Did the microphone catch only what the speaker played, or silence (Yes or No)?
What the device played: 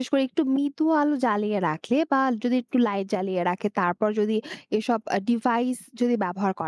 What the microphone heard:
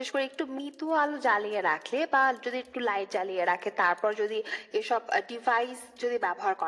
Yes